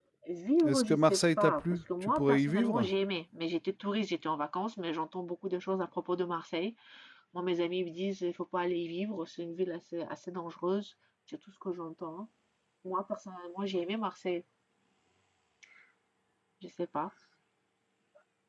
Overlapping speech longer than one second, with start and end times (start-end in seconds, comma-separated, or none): 0.6-2.9